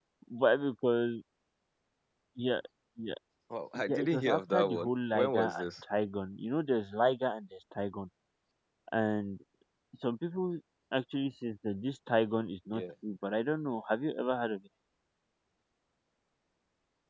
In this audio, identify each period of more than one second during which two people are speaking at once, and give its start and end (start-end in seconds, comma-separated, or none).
3.8-5.7